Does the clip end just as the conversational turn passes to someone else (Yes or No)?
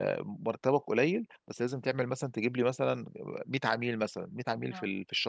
No